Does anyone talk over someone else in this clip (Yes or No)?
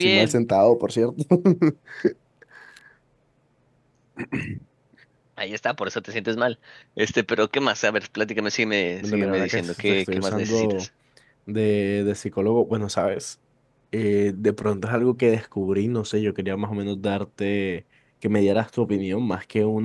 Yes